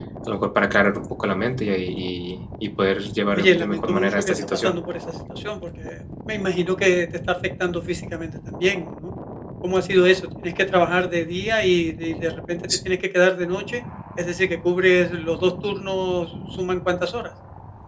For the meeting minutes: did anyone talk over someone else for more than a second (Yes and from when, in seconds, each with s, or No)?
Yes, from 3.3 s